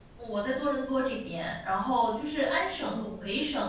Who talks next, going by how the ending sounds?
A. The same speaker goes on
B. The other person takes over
A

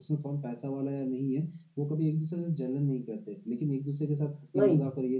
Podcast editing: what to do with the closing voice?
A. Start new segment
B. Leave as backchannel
B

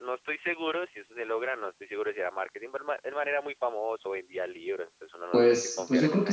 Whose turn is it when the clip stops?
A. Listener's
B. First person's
A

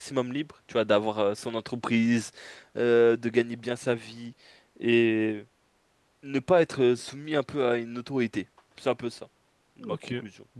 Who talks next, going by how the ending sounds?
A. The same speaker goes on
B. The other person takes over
B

